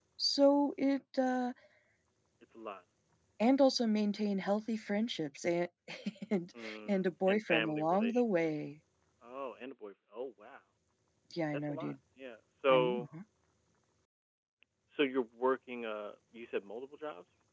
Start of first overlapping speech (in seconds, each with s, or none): 6.6 s